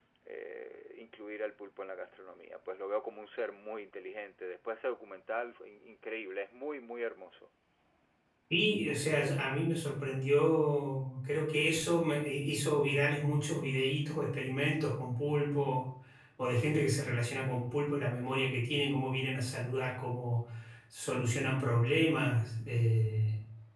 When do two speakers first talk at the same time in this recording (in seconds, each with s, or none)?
none